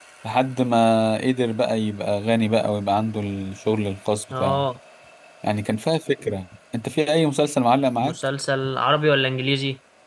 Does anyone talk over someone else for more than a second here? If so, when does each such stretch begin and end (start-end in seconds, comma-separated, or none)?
none